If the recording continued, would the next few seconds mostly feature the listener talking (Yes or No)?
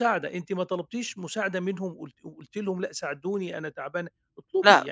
Yes